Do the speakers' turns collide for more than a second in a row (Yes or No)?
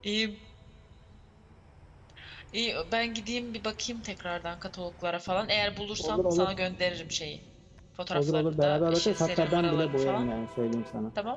Yes